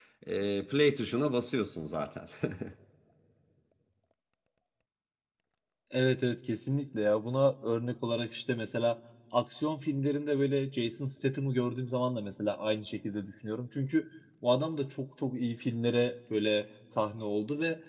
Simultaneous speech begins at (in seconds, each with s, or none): none